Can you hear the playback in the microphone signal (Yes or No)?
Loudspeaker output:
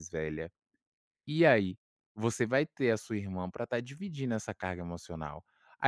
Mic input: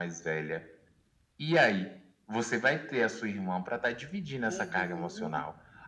Yes